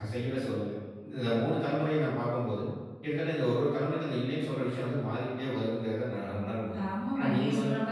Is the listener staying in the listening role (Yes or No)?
No